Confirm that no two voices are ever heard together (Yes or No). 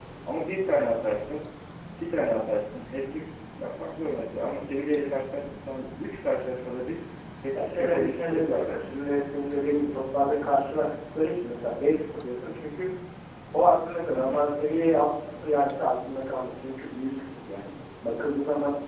No